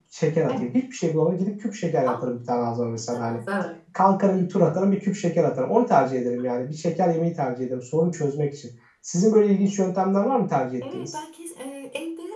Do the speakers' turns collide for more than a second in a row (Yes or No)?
No